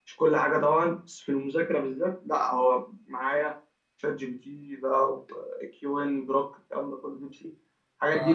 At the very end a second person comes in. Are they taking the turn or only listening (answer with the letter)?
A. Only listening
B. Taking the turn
B